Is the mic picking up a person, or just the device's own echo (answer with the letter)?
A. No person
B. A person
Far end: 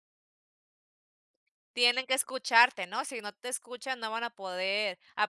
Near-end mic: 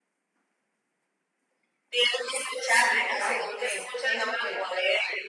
B